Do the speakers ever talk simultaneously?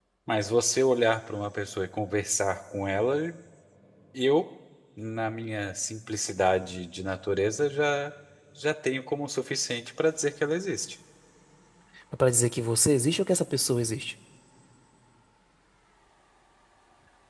No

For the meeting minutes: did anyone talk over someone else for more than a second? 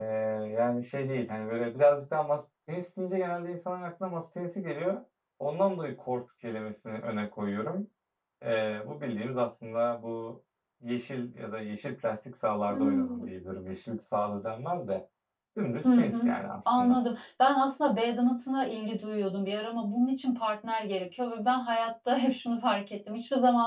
No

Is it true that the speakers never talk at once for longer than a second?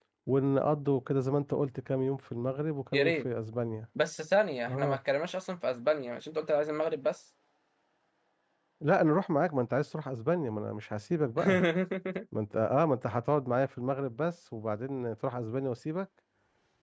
Yes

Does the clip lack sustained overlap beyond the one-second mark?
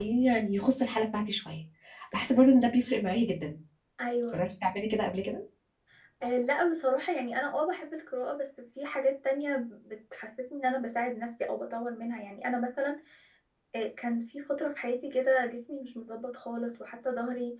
Yes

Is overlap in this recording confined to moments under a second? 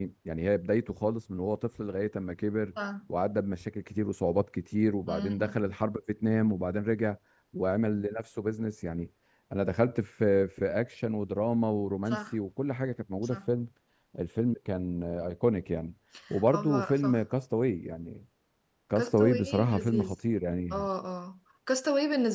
No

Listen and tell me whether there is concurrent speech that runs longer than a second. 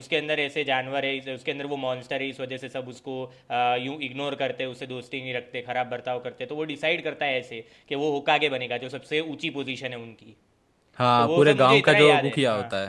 Yes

